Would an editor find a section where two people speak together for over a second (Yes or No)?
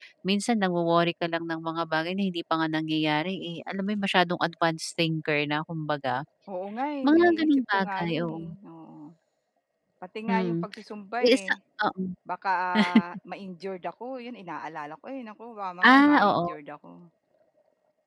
Yes